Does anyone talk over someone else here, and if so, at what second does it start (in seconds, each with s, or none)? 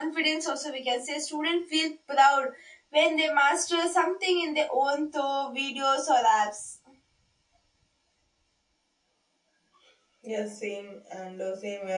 none